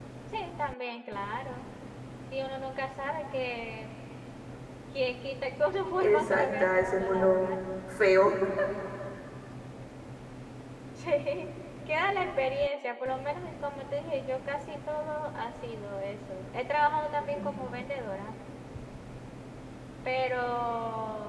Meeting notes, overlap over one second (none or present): present